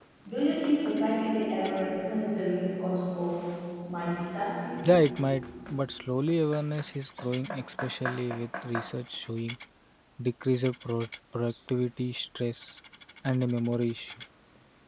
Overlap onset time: none

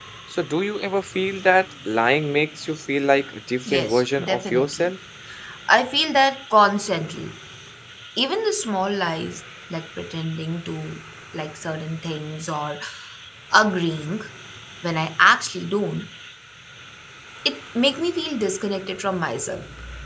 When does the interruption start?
4 s

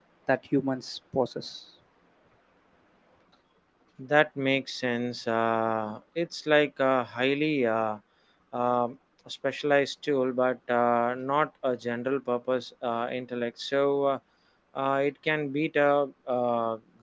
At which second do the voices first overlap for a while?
none

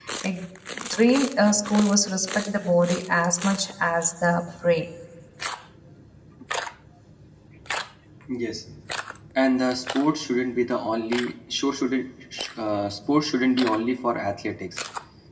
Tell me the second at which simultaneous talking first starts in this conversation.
none

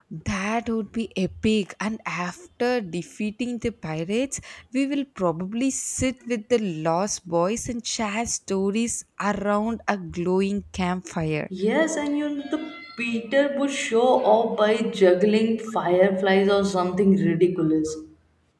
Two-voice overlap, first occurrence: none

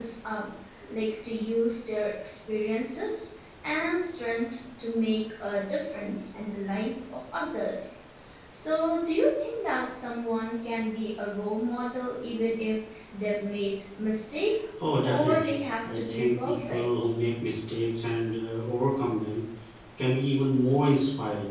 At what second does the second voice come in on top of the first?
15 s

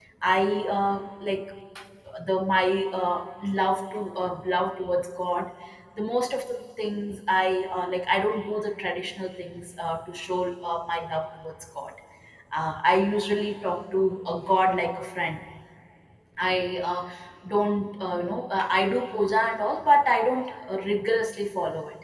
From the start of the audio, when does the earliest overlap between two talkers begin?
none

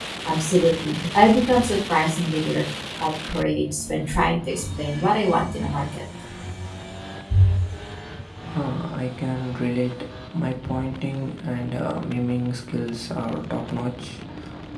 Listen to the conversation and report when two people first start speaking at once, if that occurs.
none

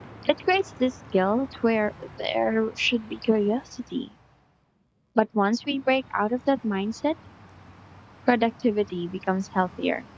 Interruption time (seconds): none

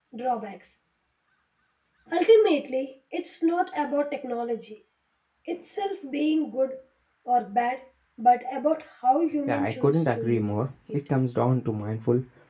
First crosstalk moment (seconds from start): 9 s

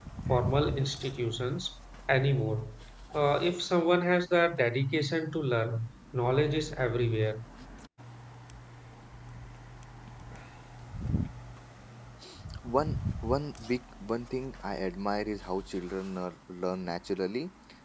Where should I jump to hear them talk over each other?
none

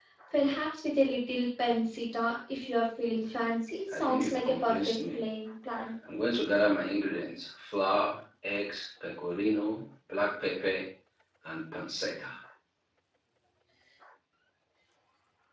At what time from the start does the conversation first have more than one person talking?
4 s

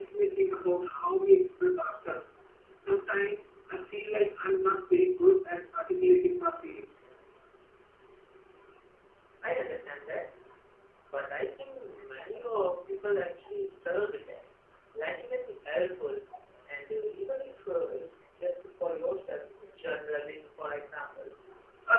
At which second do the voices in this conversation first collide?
none

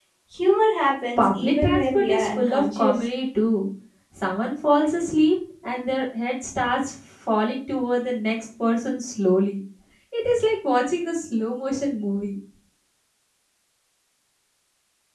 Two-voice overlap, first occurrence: 1 s

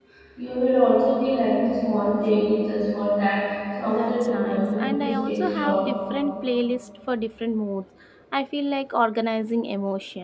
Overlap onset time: 4 s

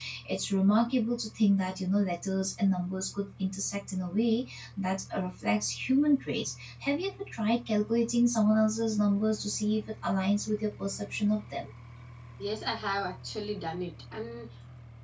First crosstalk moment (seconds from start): none

